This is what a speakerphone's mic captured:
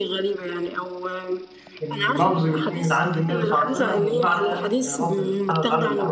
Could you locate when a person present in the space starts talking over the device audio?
1.8 s

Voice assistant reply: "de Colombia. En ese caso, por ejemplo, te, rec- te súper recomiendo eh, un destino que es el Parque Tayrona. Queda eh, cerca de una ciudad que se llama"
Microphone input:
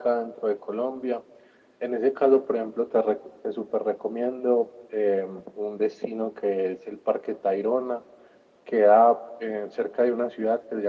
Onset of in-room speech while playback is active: none

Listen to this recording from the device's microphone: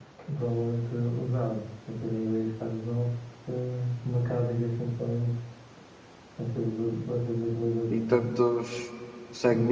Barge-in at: 7.9 s

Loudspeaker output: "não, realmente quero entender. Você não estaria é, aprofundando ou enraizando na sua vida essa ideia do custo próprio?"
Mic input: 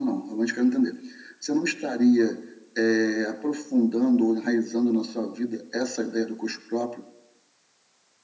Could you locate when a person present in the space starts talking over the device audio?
none

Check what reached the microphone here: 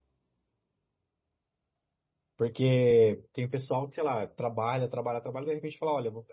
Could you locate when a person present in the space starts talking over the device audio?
2.4 s

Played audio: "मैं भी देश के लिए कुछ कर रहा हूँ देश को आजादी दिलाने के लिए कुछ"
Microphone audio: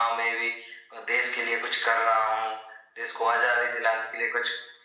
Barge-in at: none

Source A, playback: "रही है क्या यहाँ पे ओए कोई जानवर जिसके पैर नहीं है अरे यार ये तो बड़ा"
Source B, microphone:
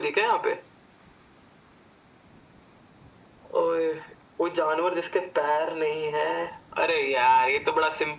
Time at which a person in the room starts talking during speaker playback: none

